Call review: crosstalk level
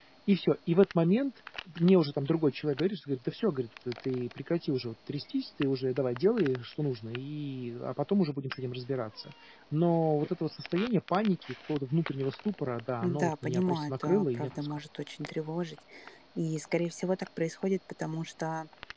present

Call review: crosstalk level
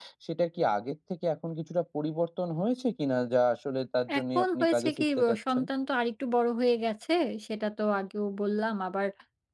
present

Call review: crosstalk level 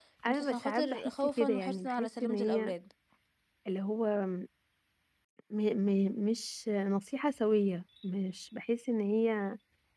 present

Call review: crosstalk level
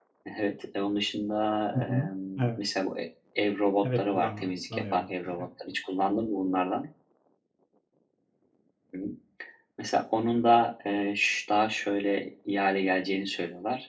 present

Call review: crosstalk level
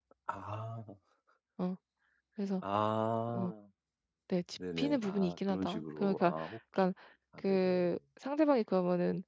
present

